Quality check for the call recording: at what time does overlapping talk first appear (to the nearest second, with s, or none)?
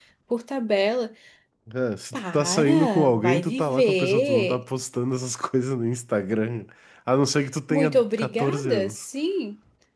2 s